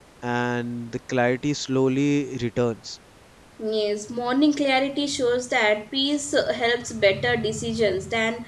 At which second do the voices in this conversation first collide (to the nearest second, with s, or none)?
none